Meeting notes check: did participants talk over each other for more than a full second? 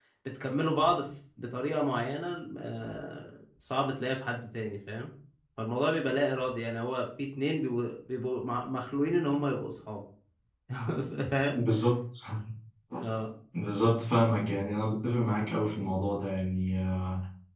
No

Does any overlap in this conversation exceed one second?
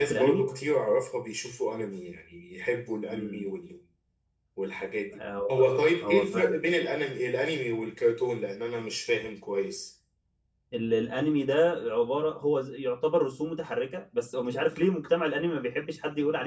No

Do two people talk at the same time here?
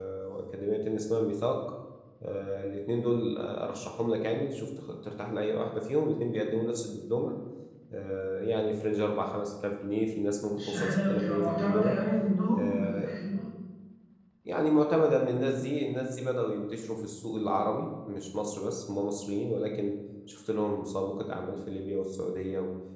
Yes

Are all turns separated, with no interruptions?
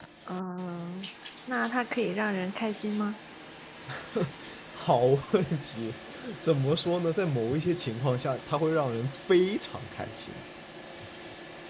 Yes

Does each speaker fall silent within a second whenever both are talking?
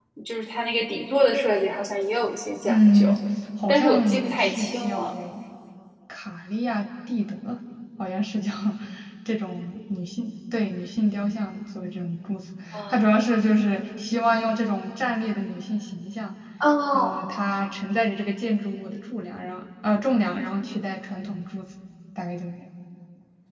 No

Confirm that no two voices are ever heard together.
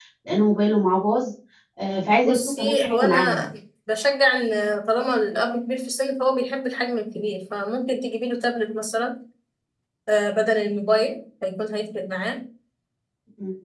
No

